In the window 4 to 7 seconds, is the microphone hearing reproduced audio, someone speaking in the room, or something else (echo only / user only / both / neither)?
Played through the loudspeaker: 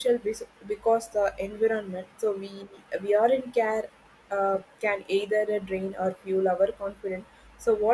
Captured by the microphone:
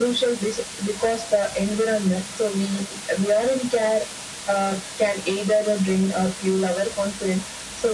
echo only